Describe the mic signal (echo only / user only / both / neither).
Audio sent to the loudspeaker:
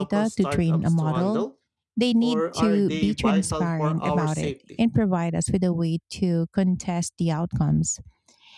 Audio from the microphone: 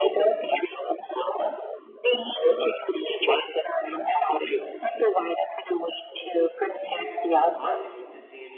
both